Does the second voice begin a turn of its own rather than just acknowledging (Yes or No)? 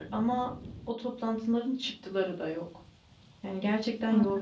Yes